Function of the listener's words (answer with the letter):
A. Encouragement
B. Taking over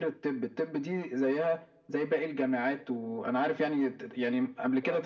A